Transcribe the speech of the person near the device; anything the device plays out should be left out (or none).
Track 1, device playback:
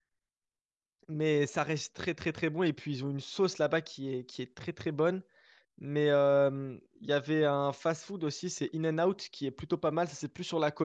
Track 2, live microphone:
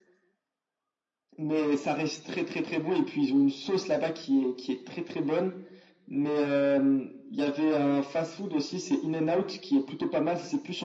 none